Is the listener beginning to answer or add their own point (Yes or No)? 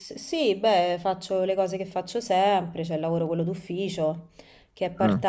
No